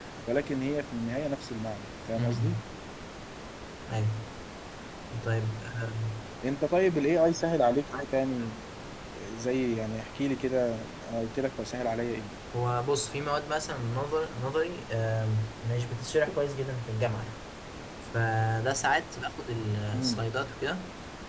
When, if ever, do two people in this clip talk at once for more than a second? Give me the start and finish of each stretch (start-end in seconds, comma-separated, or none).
none